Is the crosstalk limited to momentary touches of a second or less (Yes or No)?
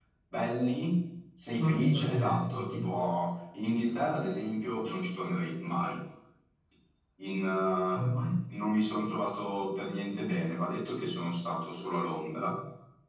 No